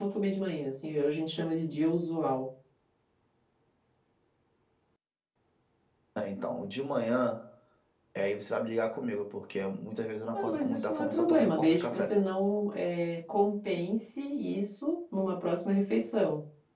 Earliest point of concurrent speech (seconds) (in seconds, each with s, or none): 10.3 s